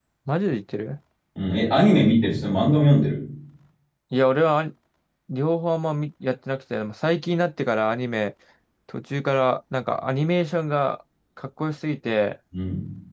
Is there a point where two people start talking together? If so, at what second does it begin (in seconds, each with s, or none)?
none